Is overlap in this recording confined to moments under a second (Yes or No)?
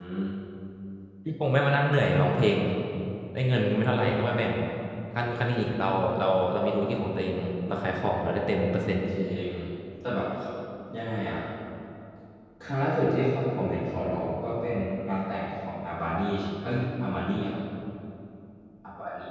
Yes